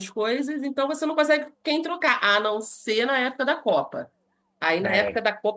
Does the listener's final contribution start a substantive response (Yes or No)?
No